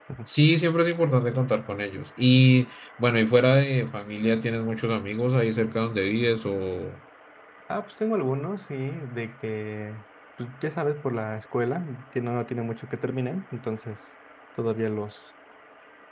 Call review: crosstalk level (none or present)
none